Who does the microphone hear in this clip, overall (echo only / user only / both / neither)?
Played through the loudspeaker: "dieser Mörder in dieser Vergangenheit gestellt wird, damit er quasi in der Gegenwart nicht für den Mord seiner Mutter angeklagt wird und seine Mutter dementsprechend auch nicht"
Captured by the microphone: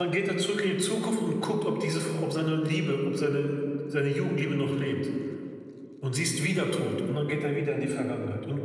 user only